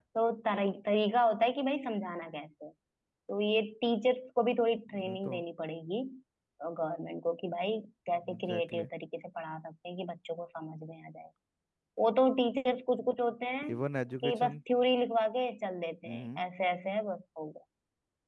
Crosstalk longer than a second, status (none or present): none